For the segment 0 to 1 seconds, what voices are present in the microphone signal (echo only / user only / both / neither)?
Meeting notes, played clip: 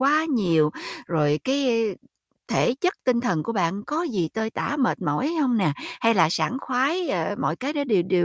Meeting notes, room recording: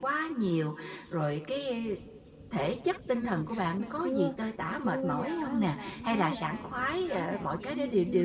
echo only